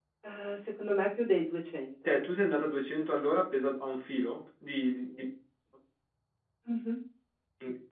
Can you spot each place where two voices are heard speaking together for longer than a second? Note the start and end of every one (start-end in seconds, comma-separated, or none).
none